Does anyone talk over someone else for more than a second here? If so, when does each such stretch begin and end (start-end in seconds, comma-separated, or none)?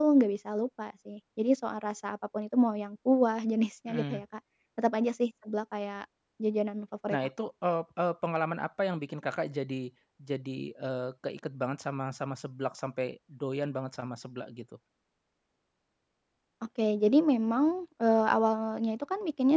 none